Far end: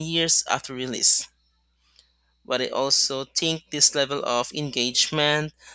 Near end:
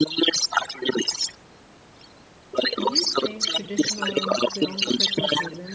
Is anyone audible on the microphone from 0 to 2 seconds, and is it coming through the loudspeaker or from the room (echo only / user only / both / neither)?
echo only